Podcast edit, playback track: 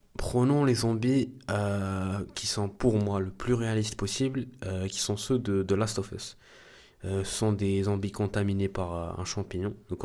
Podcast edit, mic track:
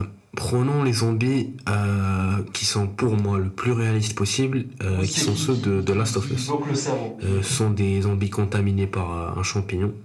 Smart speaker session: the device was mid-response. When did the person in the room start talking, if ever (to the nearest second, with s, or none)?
5 s